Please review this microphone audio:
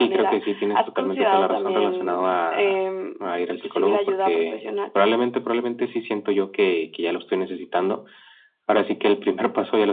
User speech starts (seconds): none

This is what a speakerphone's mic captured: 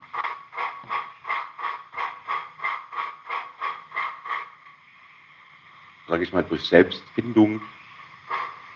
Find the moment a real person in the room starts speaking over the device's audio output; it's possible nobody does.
6.0 s

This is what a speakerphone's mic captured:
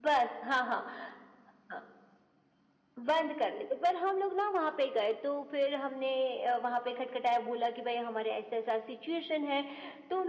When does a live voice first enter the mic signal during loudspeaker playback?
none

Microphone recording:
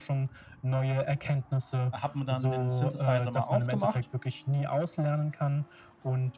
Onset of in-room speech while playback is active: 1.9 s

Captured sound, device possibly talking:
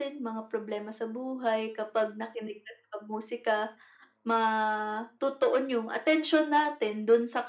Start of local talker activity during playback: none

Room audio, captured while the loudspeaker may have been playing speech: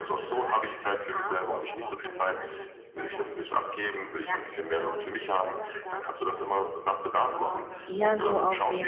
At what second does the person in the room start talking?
7.8 s

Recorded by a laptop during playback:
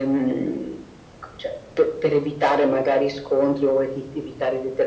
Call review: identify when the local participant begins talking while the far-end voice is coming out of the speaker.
none

